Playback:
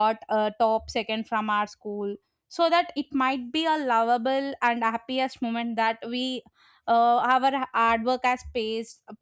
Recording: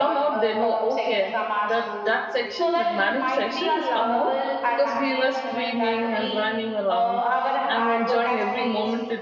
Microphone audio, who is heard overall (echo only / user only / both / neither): both